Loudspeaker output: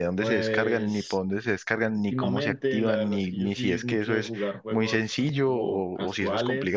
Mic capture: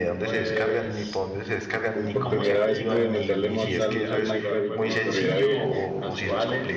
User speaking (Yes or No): Yes